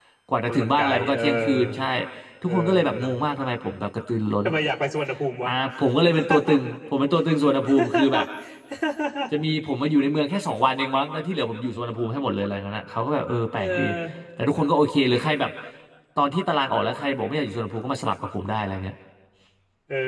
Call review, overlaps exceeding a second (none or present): present